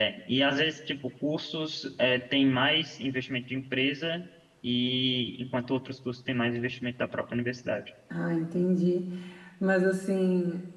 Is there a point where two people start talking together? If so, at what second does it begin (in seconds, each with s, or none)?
none